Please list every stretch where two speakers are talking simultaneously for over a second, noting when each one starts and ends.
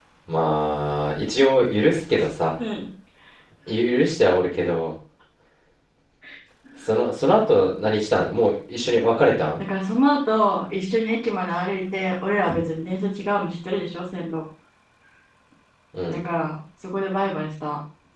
none

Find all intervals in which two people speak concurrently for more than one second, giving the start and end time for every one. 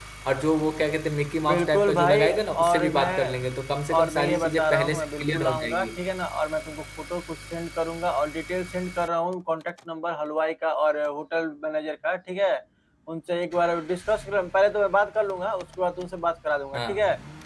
1.5-3.5, 4.0-5.9

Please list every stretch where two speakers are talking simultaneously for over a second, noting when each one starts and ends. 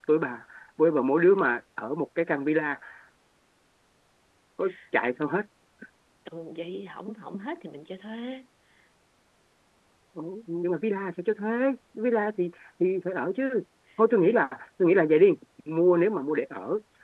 none

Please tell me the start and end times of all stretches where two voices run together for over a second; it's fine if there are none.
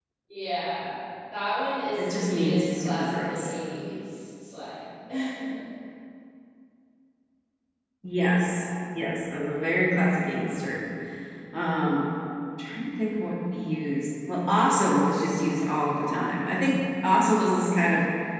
2.0-3.5

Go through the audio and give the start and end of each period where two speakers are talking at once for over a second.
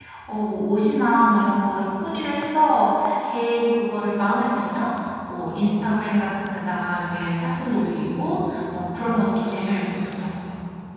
none

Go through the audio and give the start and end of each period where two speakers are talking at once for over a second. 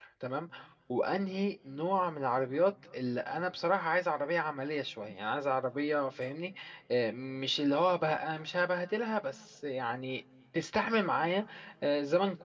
none

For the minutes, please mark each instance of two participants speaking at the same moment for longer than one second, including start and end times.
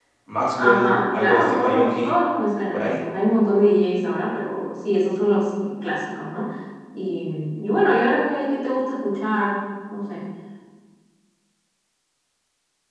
0.6-2.1

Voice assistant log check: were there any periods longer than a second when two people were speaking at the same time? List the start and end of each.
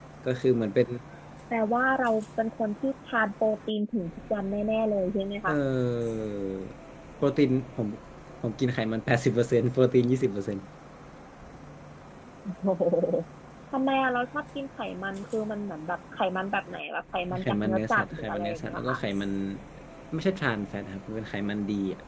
17.4-19.0

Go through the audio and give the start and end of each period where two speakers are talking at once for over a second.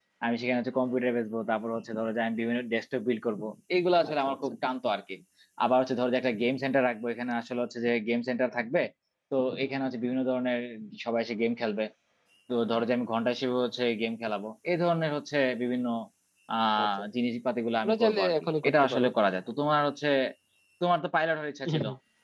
17.8-19.1

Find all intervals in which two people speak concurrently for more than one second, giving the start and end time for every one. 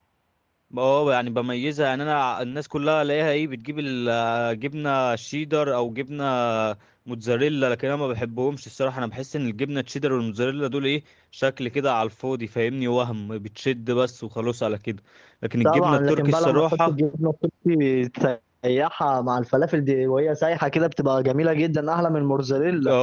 15.7-16.9

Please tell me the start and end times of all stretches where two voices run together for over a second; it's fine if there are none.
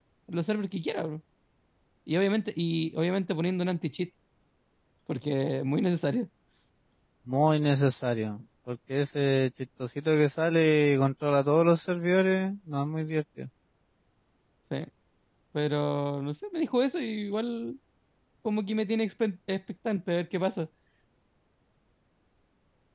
none

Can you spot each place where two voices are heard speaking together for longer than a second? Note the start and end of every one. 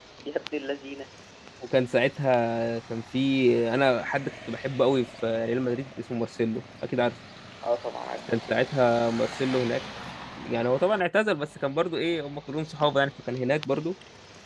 none

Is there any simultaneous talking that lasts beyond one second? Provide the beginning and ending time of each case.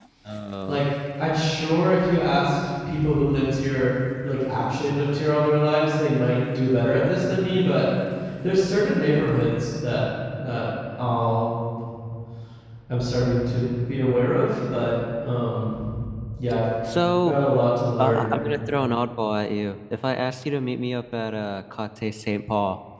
none

